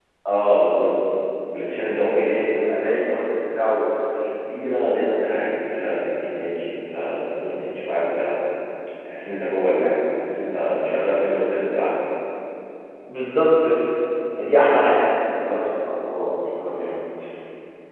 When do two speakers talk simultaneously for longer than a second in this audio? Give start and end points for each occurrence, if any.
none

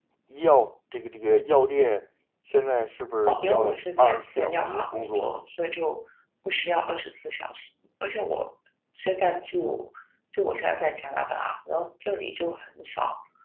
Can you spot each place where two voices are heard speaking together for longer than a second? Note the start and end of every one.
3.3-5.3

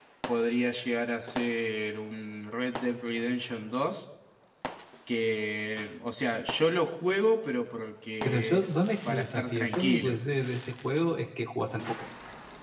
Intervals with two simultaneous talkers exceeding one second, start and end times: 8.2-10.2

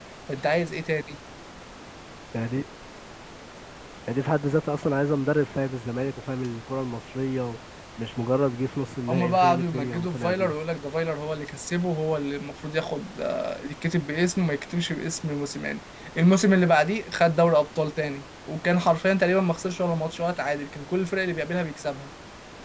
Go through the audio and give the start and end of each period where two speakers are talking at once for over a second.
9.1-10.6

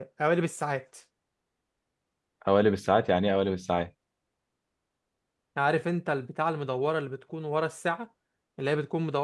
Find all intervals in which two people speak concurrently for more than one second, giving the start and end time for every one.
none

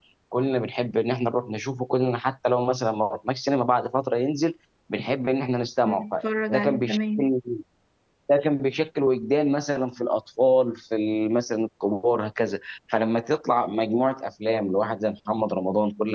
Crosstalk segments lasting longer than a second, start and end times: 5.8-7.3

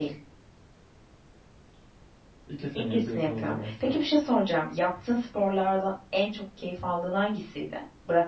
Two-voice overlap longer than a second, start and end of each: 2.8-4.0

